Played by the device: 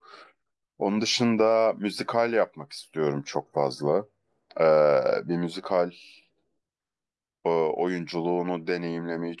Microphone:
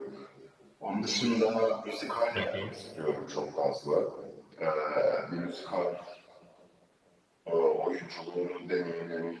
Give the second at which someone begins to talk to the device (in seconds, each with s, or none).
2.3 s